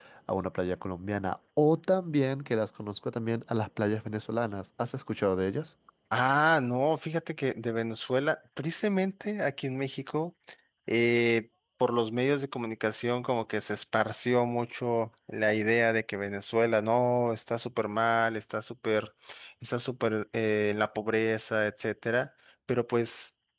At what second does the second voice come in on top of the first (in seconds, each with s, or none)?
none